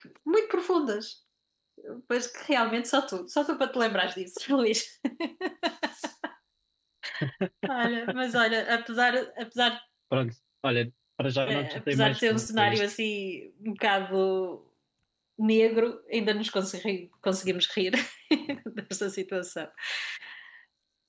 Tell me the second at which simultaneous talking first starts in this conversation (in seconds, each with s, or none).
11.4 s